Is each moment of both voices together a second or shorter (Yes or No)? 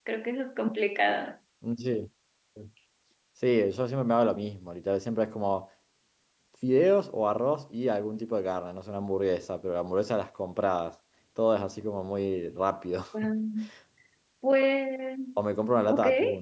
Yes